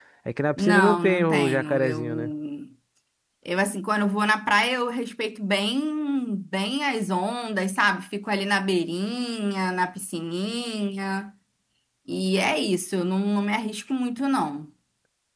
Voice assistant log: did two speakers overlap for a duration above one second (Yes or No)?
Yes